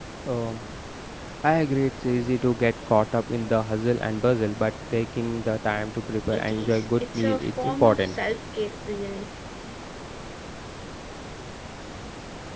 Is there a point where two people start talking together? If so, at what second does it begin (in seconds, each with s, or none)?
6.3 s